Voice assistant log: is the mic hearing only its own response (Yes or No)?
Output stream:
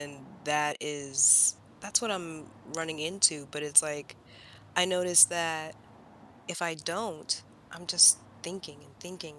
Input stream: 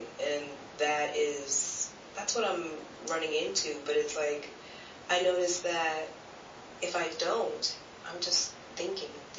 Yes